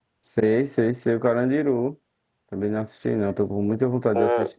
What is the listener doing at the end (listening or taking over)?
taking over